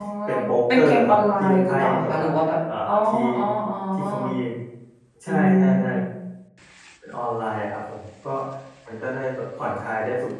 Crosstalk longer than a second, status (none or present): present